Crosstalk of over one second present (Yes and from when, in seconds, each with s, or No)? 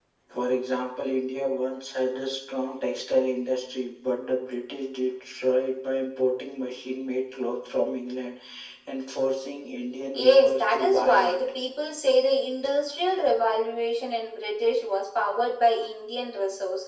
Yes, from 10.1 s